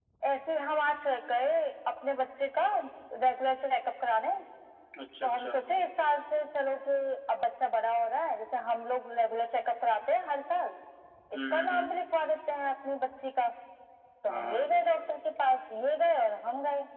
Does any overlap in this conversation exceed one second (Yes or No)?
No